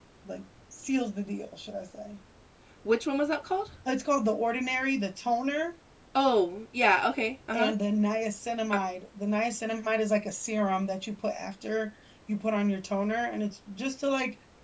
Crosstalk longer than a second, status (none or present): none